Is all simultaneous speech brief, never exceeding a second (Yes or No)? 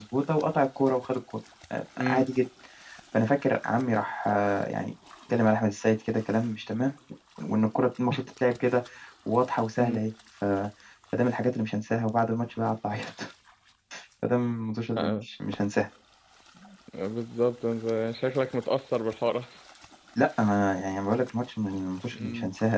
Yes